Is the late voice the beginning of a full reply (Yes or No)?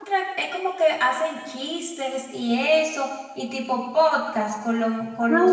Yes